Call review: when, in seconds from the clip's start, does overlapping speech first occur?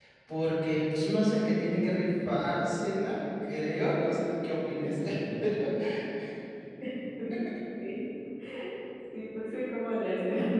none

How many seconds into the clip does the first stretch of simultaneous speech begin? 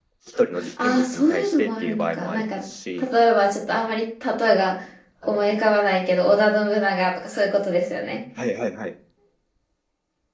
0.8 s

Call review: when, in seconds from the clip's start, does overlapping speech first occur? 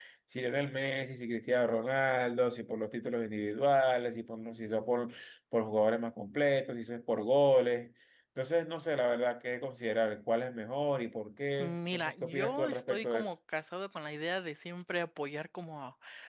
11.6 s

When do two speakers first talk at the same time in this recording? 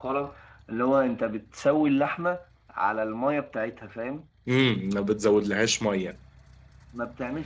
none

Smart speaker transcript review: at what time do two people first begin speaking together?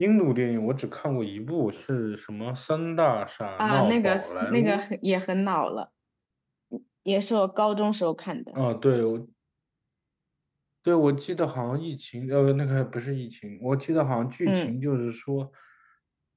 3.6 s

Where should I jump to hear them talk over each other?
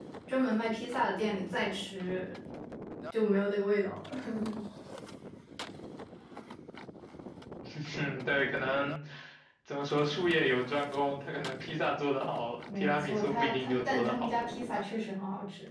12.7 s

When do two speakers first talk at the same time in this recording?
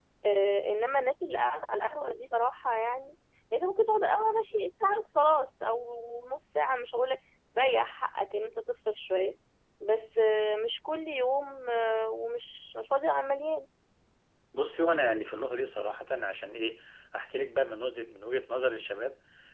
none

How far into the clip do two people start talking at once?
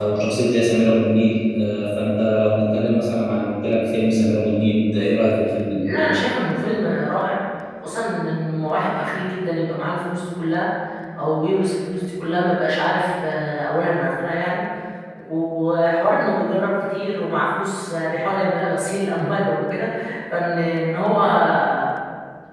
none

